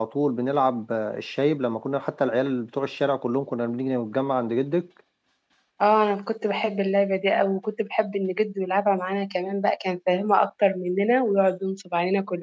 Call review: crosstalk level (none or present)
none